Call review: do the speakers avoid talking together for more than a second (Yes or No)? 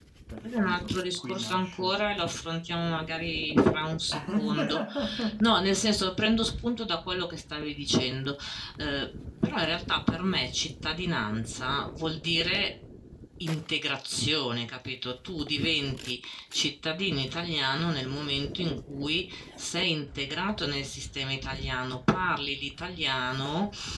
No